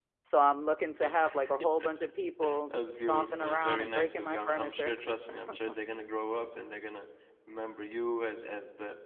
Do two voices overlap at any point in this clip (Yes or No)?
Yes